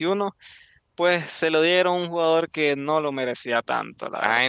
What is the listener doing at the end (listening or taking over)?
taking over